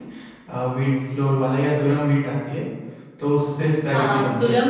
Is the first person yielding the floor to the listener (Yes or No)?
Yes